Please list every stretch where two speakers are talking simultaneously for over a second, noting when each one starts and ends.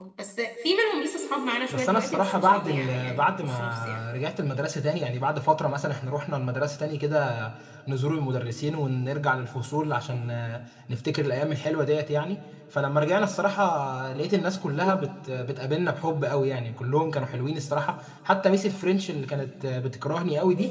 1.7-4.0

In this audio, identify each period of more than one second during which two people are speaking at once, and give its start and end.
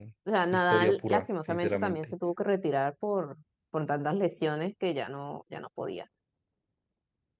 0.5-2.1

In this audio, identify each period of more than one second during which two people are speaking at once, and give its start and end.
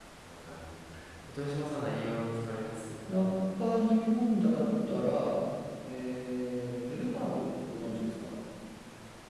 none

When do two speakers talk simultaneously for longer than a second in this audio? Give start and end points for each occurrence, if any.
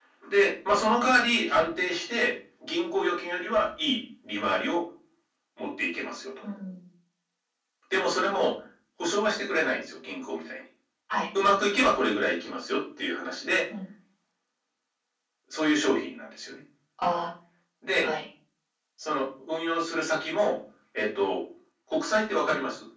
none

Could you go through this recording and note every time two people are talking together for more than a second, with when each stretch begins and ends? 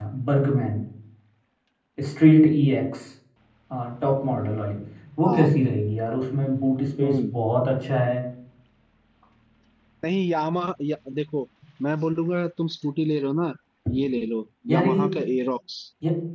none

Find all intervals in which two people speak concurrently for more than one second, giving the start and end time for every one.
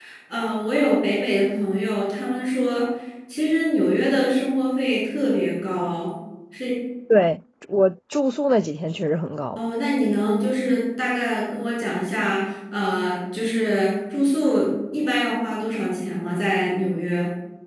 none

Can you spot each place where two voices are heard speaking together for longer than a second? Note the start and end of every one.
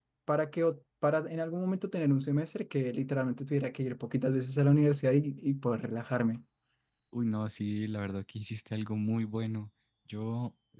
none

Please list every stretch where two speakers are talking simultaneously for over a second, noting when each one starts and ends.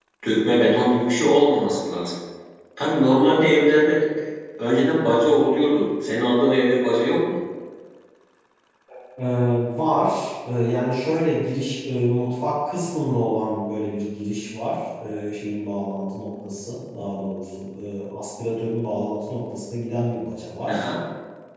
none

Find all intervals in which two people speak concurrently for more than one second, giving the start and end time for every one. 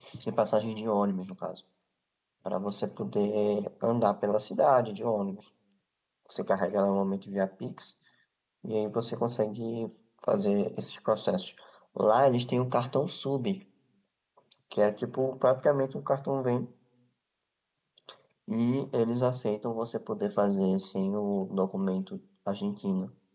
none

